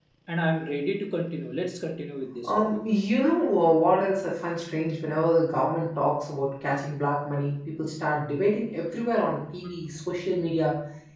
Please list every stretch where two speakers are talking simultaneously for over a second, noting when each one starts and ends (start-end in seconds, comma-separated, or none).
none